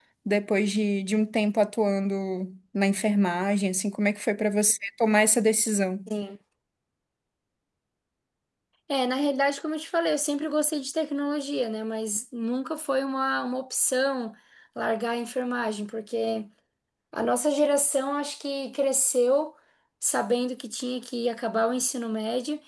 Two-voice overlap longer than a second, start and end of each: none

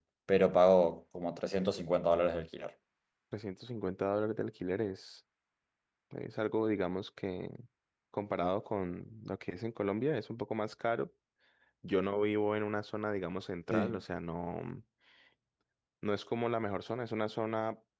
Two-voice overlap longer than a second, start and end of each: none

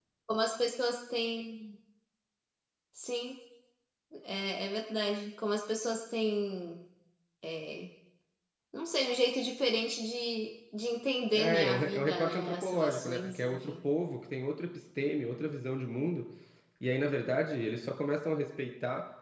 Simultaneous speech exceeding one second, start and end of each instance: 11.3-13.7

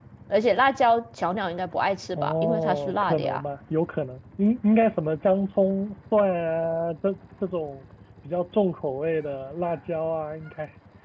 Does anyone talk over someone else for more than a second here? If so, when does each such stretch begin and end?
2.2-3.4

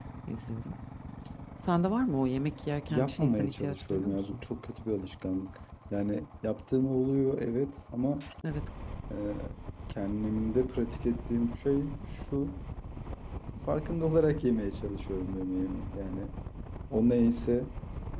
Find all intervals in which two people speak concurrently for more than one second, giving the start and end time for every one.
2.9-4.4

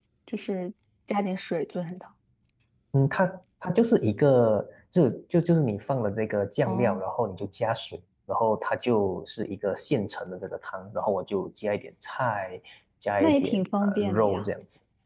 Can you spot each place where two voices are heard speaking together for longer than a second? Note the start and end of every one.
13.2-14.4

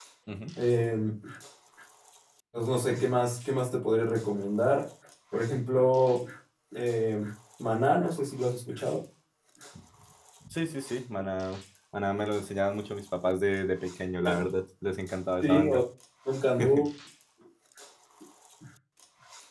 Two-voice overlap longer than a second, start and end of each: none

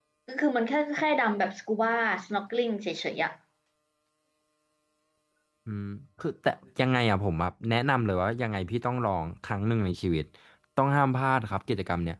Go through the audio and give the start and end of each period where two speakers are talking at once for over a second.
none

